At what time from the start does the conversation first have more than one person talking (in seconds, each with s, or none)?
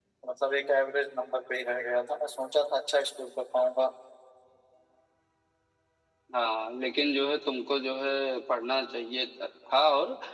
none